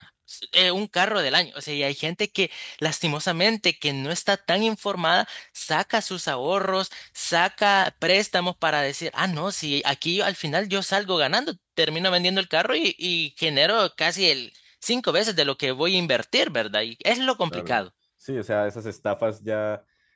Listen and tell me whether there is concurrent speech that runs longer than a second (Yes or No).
No